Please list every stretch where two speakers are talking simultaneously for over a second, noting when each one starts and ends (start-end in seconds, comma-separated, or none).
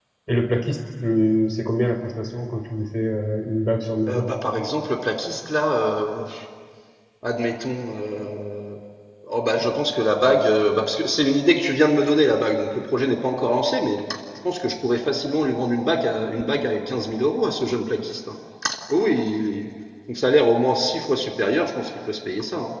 none